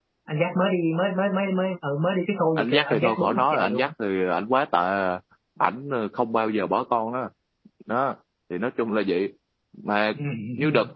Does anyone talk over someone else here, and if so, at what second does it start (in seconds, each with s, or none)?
2.6 s